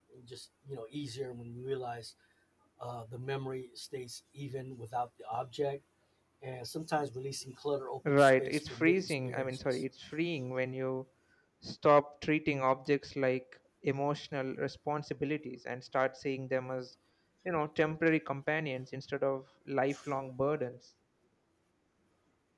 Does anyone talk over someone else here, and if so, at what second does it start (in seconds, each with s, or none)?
8.1 s